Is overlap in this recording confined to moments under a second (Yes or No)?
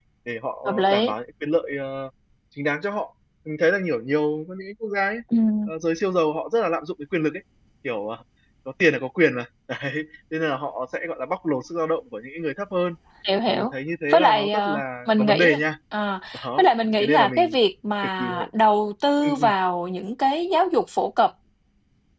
No